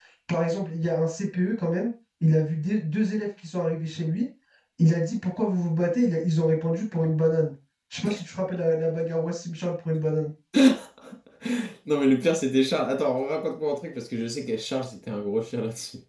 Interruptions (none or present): none